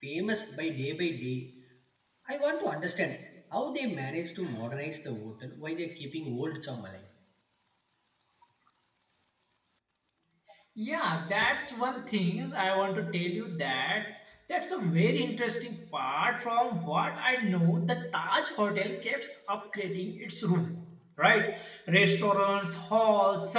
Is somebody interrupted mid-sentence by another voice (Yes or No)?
No